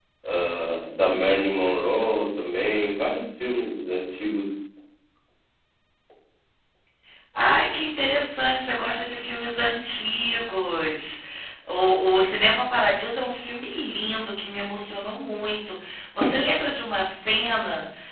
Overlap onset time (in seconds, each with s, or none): none